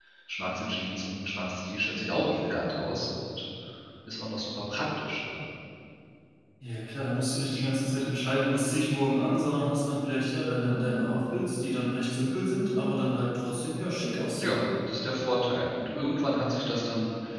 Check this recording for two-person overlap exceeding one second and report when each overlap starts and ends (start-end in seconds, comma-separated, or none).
none